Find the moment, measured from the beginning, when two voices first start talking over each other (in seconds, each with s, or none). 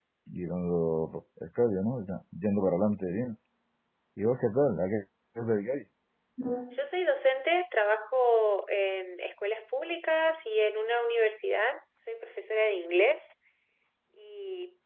none